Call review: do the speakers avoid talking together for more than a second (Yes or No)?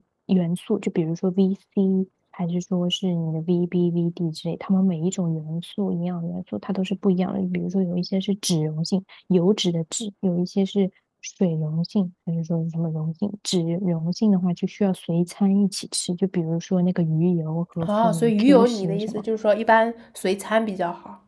No